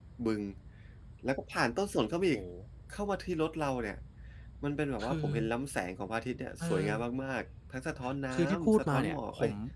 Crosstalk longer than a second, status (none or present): present